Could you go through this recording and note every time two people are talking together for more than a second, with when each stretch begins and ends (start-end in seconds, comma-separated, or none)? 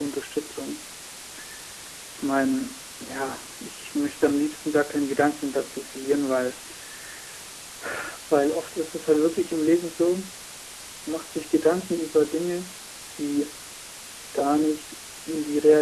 none